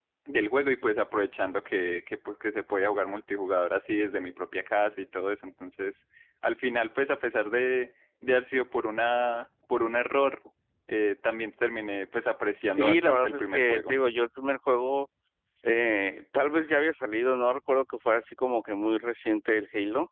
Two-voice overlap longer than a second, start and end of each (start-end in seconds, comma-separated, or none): 12.7-13.9